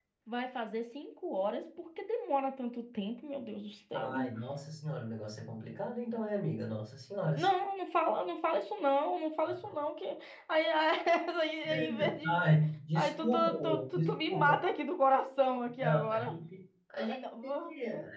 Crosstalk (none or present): present